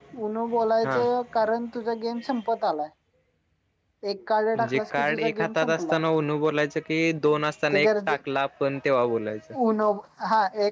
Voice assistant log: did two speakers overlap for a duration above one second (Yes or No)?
Yes